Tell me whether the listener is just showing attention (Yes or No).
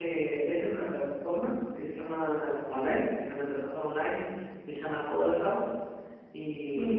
Yes